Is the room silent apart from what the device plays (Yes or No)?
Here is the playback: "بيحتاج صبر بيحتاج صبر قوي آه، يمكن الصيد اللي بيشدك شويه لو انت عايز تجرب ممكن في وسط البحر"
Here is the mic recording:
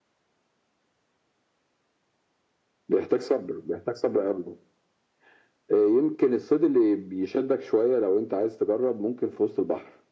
Yes